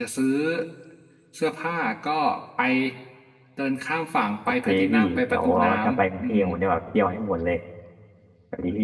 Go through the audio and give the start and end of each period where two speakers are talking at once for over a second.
4.7-6.4

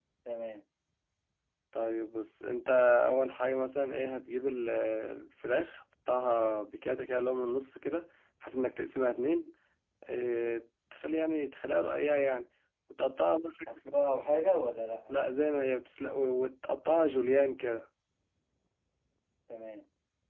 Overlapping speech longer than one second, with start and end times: none

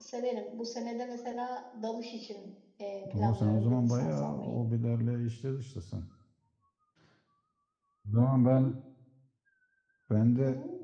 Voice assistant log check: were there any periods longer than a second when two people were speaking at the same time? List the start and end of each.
3.1-4.6

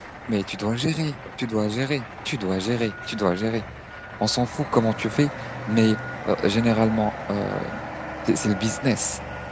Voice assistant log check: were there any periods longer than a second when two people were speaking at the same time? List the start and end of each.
none

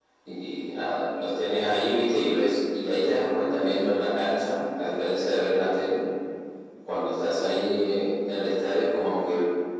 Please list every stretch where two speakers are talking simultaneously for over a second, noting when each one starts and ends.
none

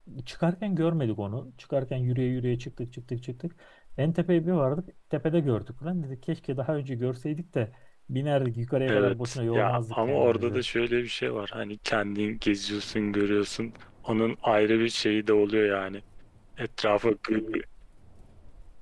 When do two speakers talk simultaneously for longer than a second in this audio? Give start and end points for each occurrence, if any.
8.9-10.6

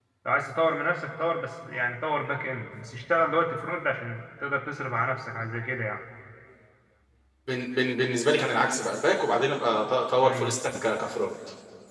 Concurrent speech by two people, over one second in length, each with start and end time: none

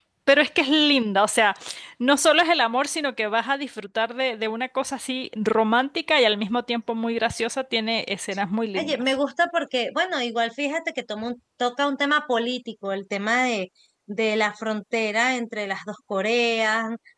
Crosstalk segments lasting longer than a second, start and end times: none

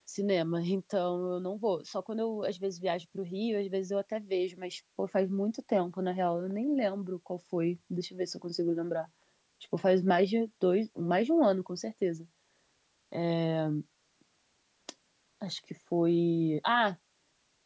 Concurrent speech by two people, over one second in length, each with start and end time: none

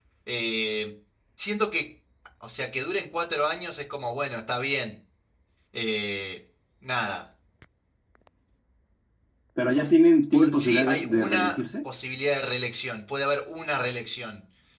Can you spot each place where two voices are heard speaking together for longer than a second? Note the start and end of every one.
10.3-11.6

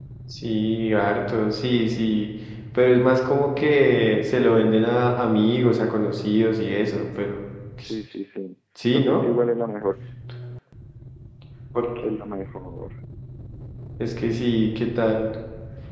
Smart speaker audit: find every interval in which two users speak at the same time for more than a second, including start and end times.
none

